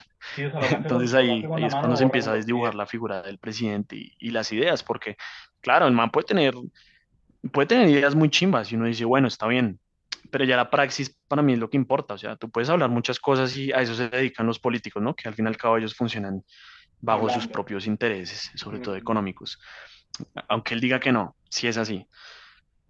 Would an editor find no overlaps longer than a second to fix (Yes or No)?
No